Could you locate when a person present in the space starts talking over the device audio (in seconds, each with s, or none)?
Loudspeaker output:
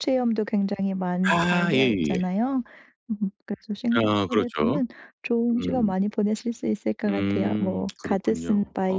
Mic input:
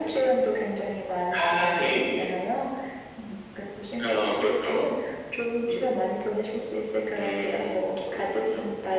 none